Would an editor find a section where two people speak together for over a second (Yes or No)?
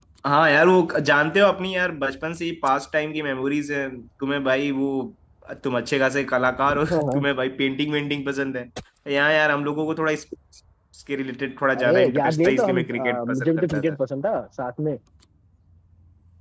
Yes